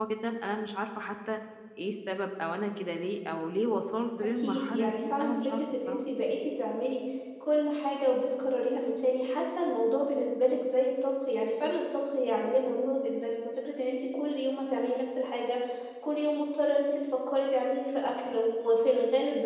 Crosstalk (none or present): present